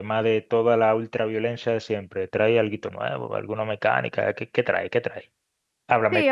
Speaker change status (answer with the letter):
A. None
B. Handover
B